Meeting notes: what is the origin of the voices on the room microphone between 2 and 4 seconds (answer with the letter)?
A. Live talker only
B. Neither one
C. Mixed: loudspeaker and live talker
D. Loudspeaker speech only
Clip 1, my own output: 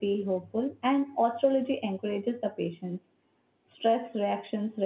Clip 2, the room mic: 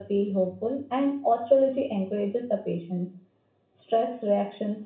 D